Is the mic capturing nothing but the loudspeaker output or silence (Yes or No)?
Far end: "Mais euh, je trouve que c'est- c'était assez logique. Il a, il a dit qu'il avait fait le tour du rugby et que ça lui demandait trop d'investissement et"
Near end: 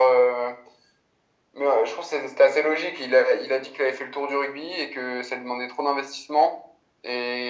Yes